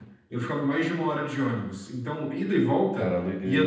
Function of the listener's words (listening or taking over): listening